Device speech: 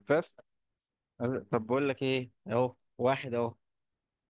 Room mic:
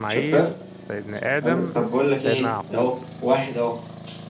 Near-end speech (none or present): present